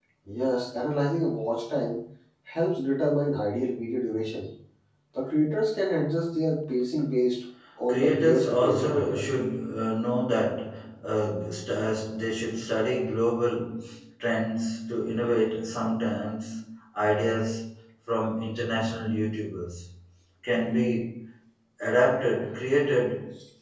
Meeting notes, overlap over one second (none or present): present